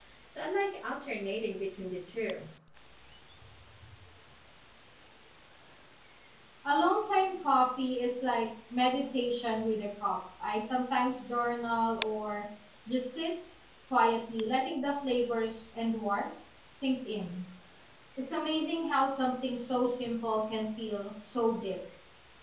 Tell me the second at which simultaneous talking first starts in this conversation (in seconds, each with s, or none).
none